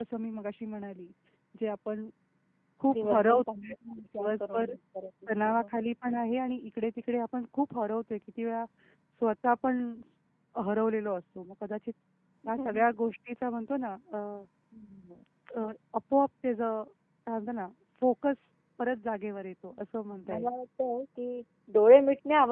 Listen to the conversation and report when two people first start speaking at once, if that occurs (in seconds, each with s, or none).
2.9 s